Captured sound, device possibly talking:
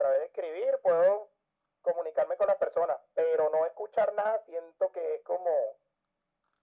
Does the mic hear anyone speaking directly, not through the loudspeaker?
No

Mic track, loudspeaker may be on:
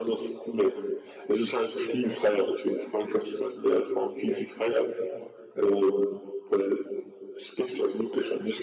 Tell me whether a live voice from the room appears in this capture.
No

